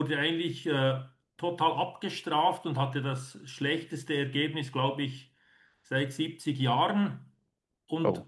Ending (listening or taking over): listening